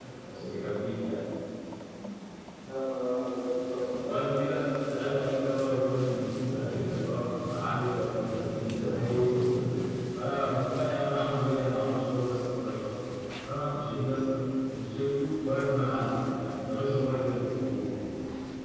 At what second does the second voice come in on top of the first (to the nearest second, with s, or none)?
4 s